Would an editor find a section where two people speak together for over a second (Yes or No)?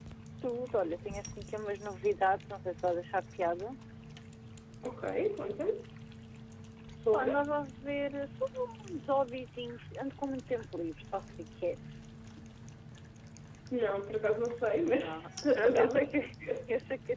Yes